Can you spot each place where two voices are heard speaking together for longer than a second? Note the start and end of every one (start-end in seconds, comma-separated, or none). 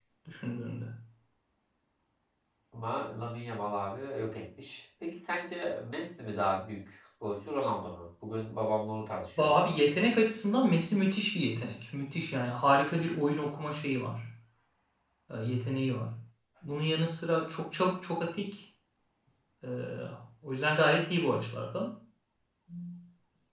none